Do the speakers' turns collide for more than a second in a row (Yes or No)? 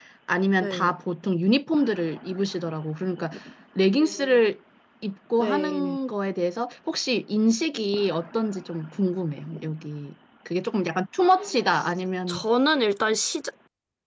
No